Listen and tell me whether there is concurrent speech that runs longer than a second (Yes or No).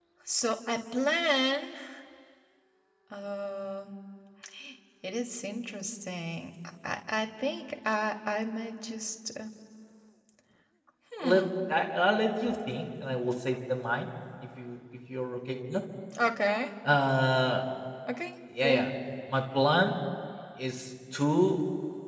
No